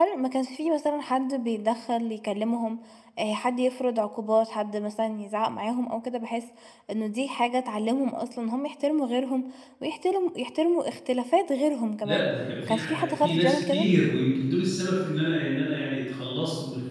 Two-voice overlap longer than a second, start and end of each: 12.6-13.9

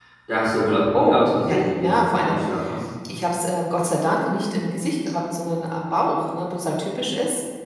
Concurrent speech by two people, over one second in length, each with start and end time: 0.9-2.4

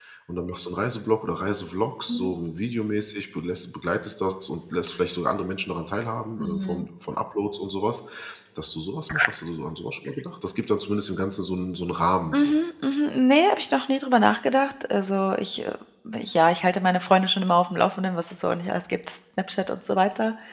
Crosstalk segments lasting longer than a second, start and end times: none

